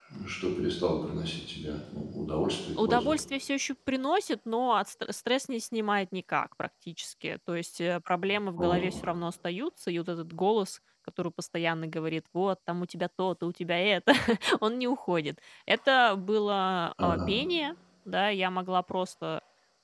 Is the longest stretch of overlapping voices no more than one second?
Yes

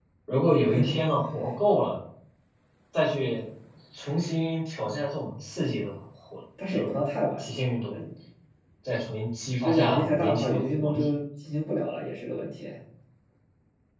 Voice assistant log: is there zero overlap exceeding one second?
No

